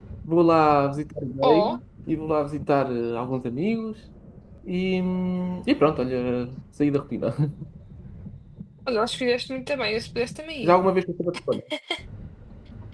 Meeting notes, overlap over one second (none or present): none